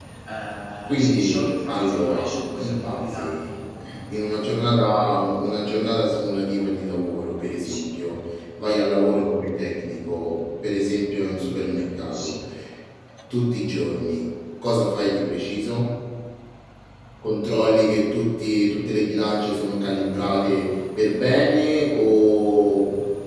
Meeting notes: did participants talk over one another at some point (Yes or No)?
Yes